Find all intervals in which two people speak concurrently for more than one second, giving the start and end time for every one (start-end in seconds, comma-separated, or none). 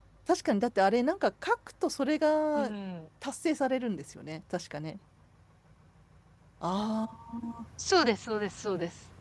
none